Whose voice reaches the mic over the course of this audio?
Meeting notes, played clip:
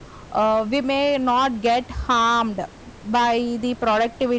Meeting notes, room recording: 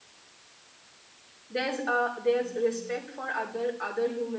user only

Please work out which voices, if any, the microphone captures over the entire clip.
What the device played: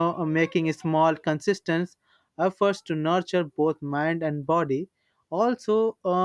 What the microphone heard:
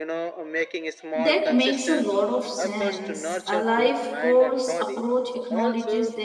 both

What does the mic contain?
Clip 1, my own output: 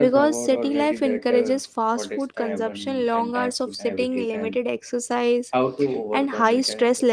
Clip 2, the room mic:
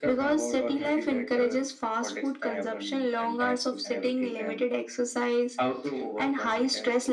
echo only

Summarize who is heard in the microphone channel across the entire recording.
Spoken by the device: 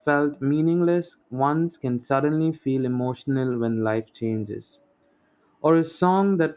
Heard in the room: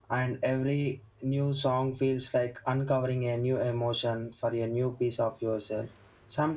user only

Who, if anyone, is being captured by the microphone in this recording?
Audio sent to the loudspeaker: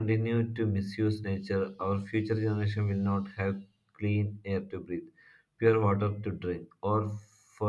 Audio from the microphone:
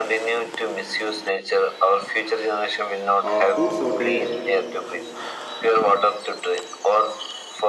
both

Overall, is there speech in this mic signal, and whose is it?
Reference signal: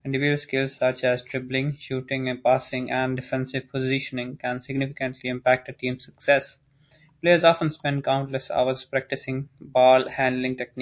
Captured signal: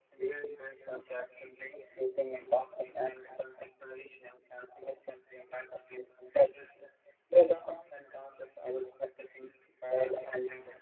echo only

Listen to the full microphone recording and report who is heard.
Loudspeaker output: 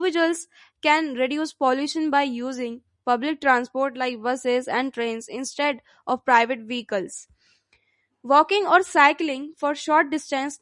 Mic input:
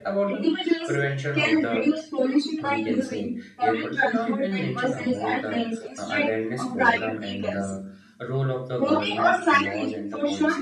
both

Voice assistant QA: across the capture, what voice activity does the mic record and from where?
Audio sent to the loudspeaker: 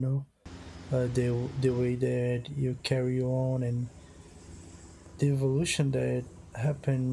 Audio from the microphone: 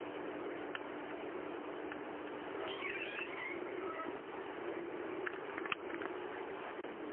neither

